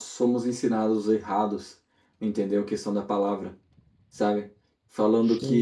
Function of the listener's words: listening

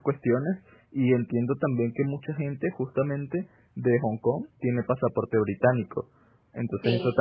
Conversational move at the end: listening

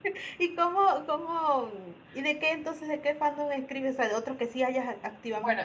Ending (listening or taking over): taking over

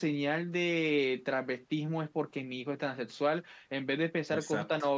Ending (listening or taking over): listening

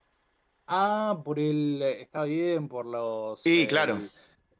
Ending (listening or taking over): listening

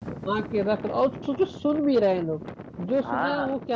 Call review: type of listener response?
taking over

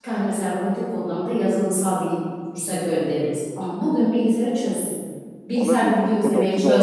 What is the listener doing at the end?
taking over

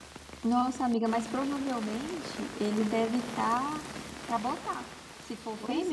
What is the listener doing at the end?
taking over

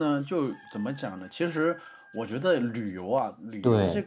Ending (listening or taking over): listening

